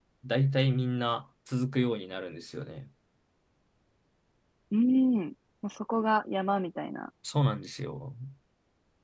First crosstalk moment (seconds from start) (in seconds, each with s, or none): none